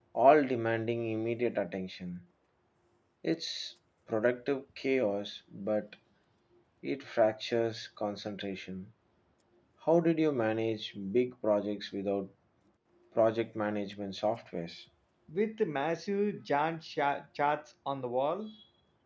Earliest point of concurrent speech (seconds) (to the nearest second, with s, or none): none